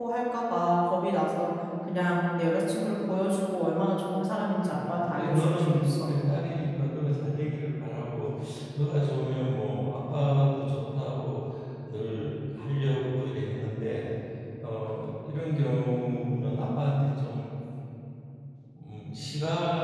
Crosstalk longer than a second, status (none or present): present